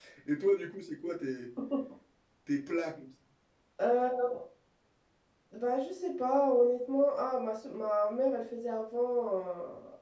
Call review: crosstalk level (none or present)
none